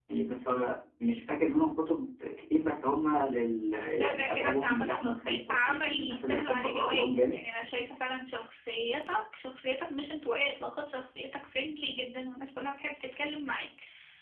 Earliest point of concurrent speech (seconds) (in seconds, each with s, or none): 3.9 s